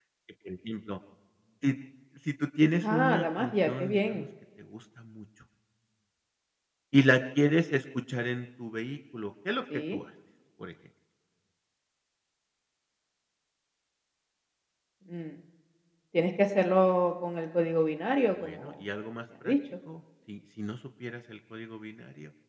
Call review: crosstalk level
present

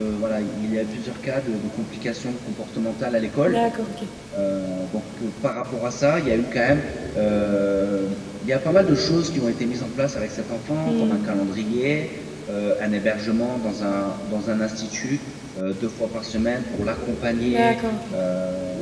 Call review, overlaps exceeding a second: none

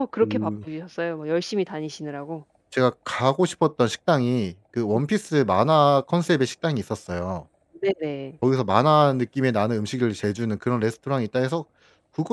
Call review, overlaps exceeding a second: none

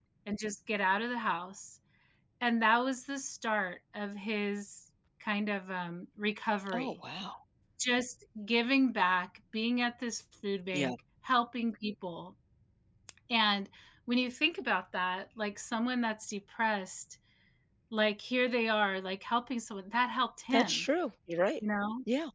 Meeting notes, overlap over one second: none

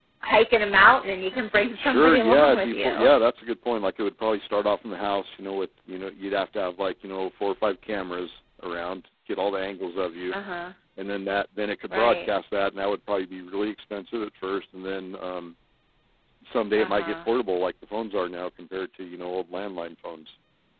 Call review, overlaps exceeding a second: present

